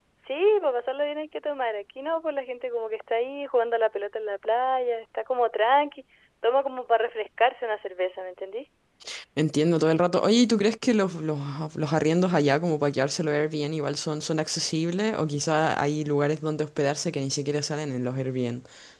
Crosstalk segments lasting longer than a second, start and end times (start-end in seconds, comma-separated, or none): none